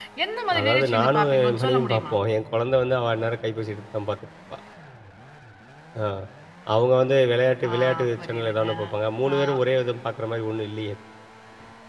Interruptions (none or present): present